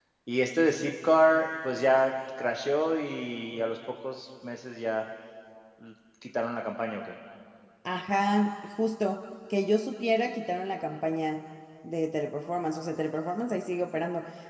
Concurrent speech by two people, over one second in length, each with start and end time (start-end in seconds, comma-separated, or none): none